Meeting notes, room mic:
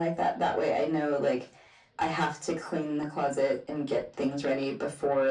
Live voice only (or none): none